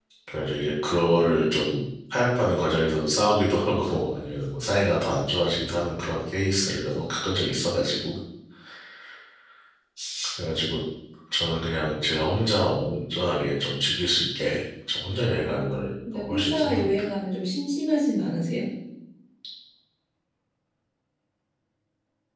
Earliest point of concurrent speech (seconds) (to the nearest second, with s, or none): 15 s